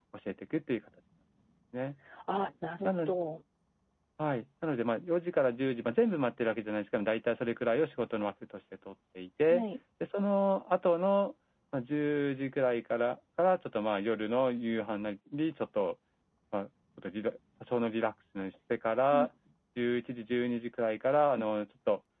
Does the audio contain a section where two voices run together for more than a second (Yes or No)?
No